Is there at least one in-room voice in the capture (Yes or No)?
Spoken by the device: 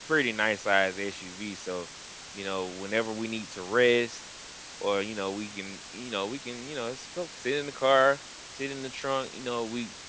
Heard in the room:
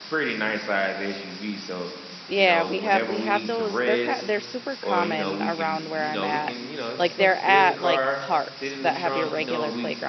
Yes